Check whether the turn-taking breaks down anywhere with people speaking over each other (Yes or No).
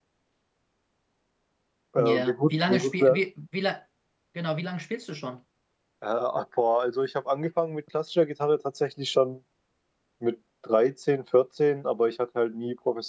Yes